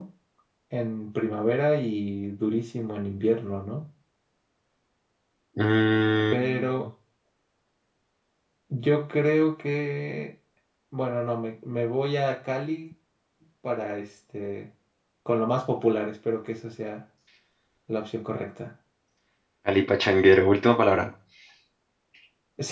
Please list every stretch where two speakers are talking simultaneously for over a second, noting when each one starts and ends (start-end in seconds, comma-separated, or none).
none